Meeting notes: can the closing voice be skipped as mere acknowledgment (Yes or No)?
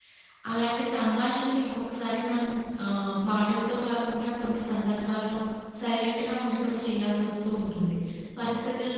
Yes